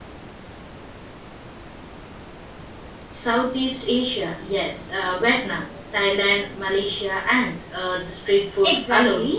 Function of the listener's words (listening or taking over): taking over